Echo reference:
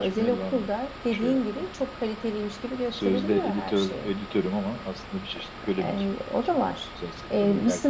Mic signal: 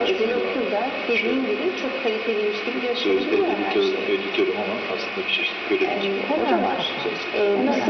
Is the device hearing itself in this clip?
Yes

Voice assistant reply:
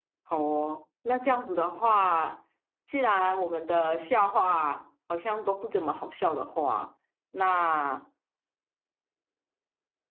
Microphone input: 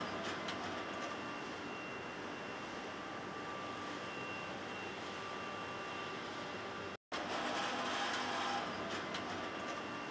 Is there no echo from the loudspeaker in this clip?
Yes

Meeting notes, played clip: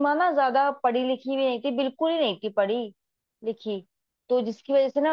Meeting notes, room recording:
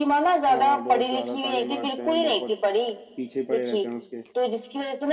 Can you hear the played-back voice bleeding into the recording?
Yes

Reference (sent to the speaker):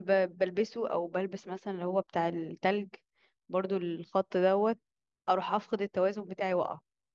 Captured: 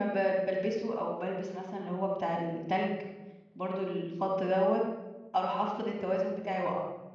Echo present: Yes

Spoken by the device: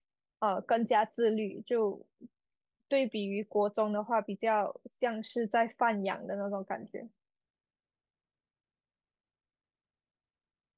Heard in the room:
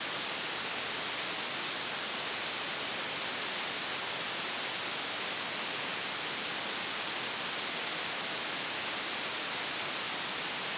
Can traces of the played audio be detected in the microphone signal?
No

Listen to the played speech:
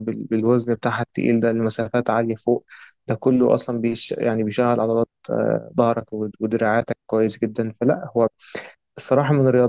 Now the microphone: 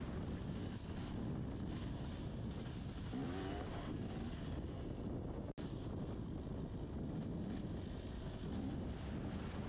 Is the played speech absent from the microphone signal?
Yes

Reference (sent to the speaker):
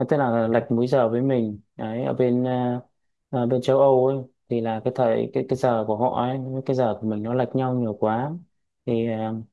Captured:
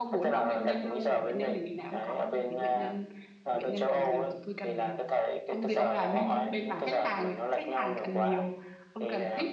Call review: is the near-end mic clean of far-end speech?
No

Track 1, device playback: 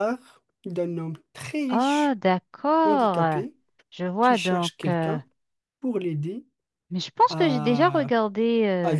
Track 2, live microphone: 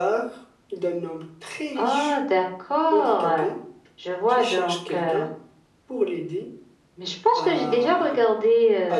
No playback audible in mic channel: No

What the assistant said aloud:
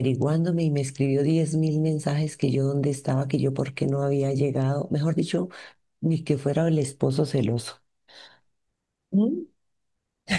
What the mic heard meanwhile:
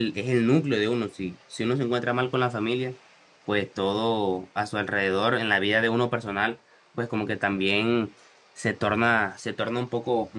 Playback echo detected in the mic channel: No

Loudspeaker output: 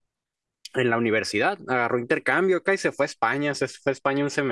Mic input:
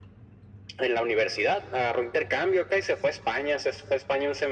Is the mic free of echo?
No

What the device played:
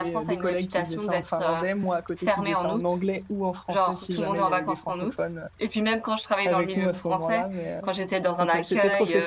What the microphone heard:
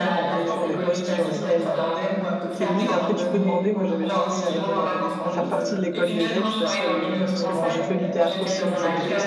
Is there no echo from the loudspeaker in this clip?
No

